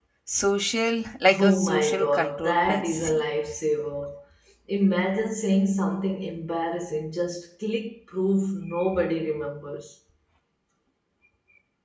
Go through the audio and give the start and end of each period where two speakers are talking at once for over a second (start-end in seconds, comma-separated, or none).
1.4-3.2